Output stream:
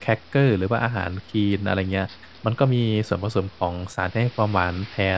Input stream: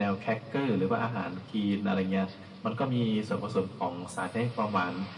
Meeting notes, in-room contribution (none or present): none